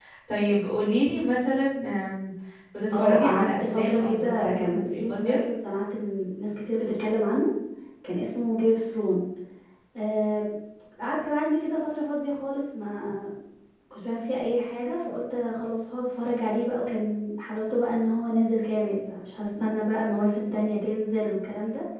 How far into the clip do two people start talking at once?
2.9 s

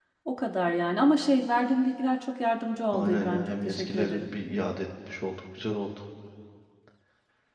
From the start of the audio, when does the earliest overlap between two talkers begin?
2.9 s

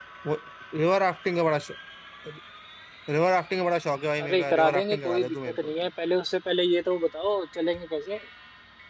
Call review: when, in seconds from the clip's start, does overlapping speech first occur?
4.2 s

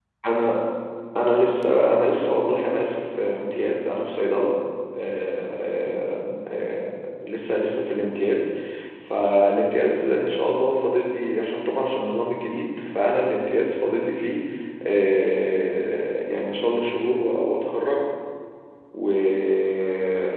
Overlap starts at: none

